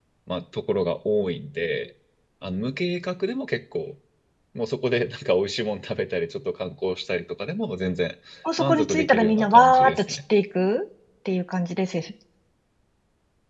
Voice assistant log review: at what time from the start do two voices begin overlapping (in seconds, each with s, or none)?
8.6 s